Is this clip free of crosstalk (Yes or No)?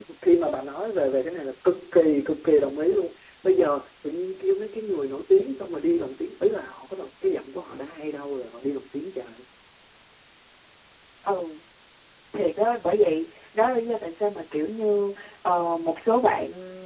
Yes